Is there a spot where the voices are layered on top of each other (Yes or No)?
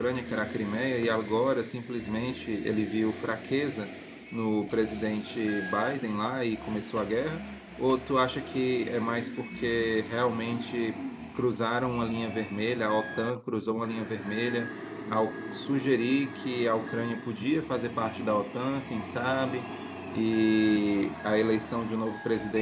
No